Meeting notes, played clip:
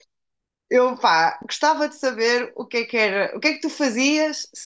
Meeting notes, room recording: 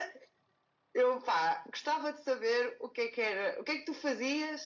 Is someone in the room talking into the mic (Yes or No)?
No